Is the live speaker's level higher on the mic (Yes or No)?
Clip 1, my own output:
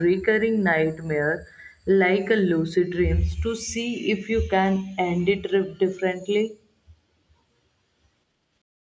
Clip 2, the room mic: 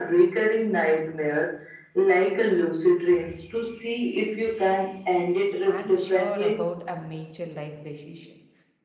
No